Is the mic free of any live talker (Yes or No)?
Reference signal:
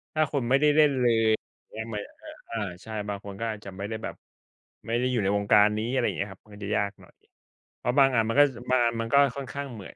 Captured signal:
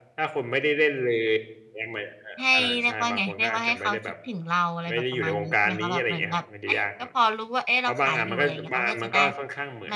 No